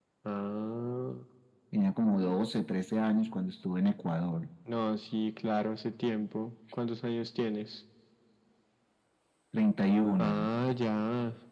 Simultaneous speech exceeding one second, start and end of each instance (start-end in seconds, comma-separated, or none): none